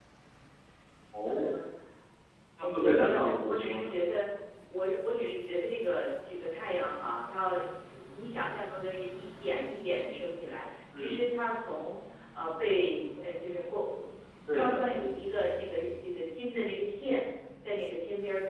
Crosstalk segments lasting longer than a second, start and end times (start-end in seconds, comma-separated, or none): 2.6-3.9